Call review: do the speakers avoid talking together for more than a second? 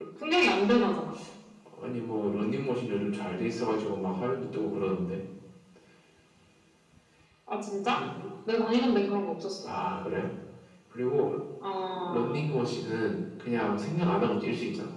Yes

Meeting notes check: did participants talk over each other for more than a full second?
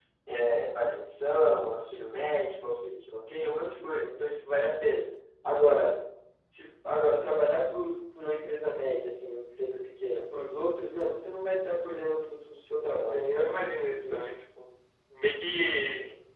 Yes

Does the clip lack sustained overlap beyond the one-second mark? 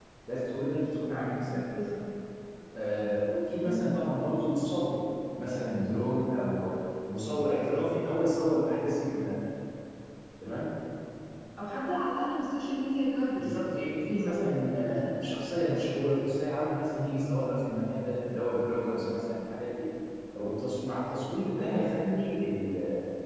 No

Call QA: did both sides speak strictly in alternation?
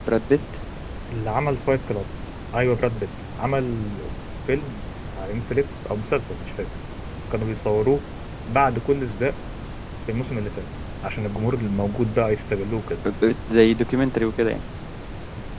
Yes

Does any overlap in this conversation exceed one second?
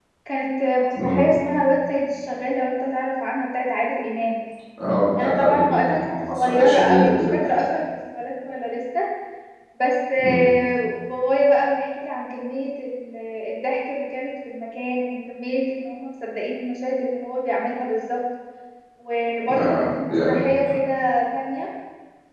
Yes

